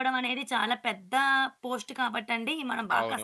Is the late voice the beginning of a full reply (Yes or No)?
Yes